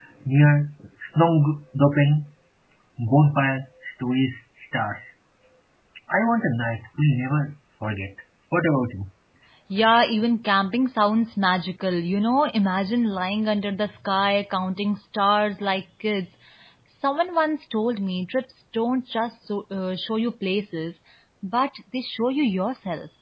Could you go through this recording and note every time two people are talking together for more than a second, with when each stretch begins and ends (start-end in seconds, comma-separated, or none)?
none